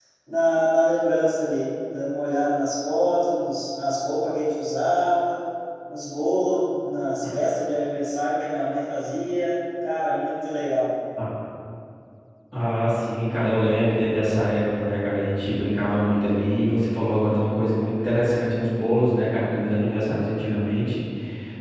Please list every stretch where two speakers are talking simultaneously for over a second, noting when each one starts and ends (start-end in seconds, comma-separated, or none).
none